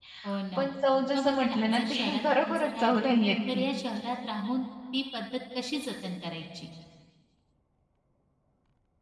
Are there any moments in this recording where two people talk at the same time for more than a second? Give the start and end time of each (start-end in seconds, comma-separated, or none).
1.1-3.1